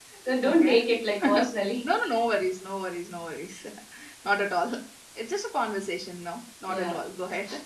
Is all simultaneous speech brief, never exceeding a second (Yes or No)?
Yes